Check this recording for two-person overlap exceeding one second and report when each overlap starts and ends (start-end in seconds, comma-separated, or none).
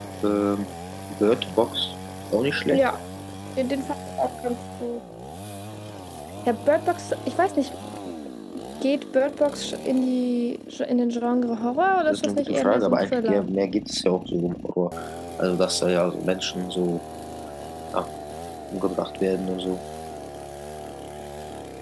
12.1-13.5